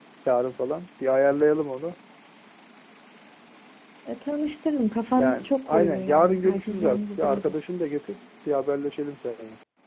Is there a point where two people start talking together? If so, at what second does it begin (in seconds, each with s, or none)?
5.2 s